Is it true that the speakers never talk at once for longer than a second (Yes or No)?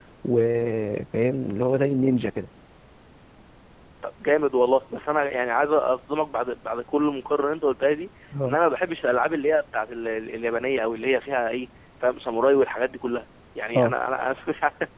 Yes